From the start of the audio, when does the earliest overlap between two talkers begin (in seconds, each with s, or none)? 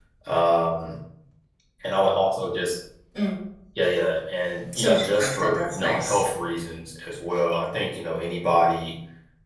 4.7 s